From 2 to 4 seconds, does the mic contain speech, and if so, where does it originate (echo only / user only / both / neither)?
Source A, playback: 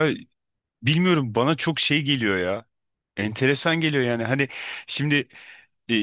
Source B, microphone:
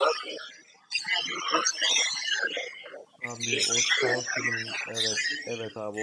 both